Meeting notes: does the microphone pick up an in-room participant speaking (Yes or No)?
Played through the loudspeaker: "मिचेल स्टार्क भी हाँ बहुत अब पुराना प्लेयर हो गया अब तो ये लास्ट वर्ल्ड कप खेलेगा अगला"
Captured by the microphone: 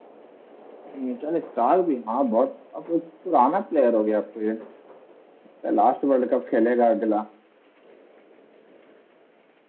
No